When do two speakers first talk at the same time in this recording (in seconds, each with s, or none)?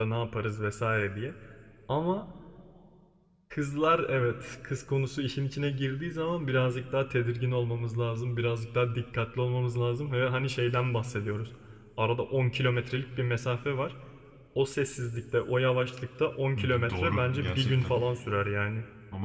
16.6 s